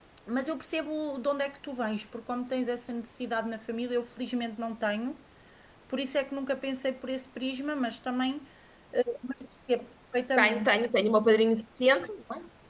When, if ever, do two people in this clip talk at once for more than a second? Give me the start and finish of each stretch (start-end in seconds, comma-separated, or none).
none